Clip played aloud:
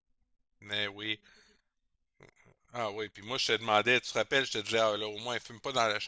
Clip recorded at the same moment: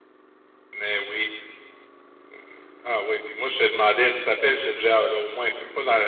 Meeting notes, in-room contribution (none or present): none